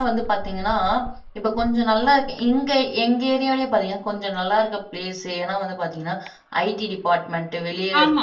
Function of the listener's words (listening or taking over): listening